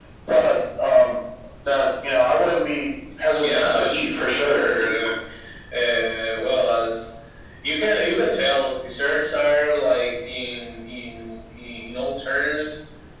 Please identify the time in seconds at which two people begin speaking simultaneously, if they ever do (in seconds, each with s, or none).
3.4 s